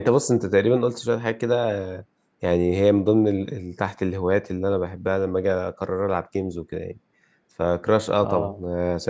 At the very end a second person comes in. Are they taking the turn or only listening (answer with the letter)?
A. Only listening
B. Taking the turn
A